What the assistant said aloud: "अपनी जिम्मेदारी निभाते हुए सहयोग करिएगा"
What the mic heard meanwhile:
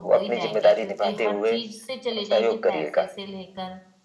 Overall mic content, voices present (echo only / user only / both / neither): both